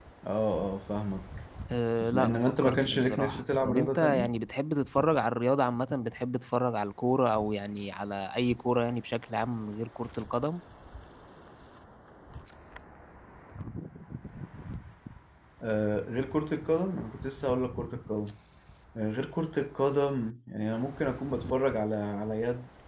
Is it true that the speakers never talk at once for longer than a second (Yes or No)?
No